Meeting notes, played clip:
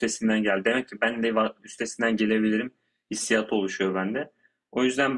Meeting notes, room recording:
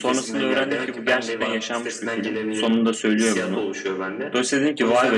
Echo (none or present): present